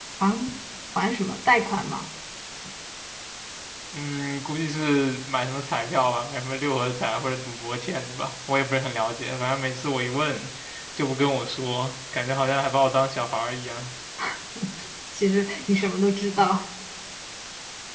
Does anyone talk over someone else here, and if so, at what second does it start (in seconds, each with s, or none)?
none